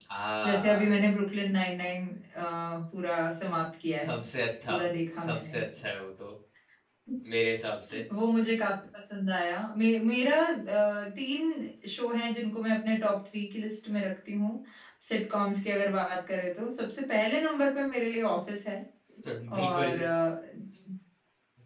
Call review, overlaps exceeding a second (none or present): none